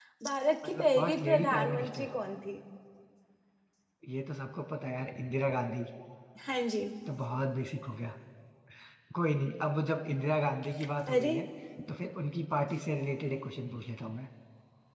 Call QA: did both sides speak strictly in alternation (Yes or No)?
No